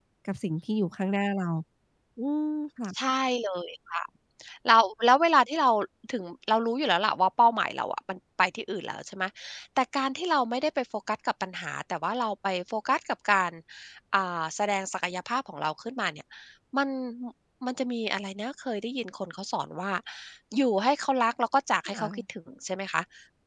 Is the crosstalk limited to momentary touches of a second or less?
Yes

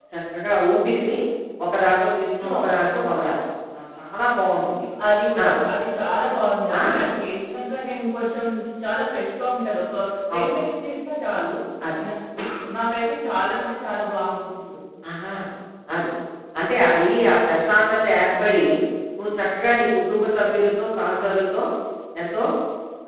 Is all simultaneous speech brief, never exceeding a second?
Yes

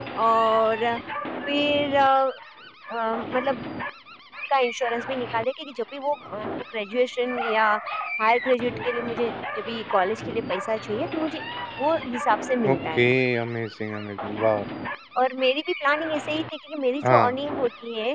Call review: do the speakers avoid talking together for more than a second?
Yes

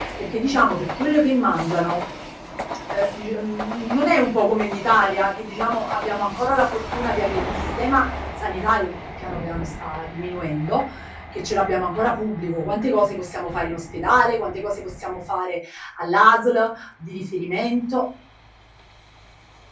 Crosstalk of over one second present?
No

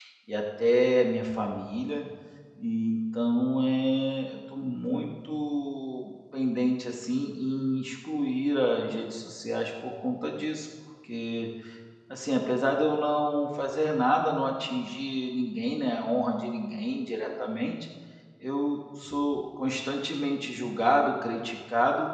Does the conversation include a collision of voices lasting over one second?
No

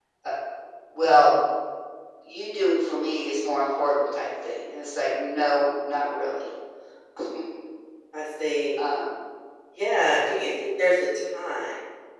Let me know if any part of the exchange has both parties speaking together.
No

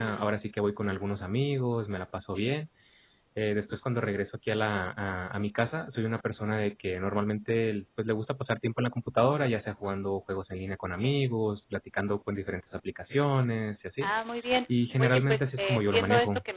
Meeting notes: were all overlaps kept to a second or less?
No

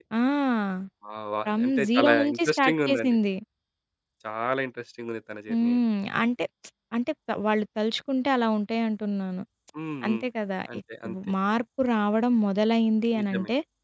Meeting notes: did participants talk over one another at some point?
Yes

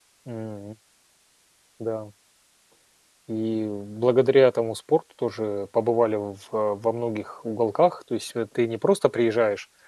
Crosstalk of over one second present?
No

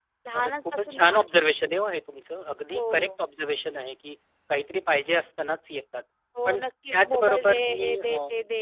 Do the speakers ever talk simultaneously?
Yes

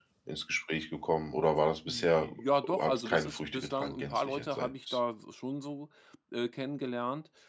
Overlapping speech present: Yes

